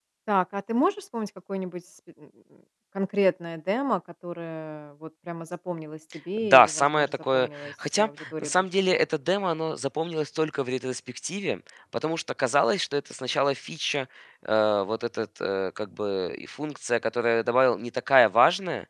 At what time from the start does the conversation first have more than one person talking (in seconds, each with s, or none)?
6.4 s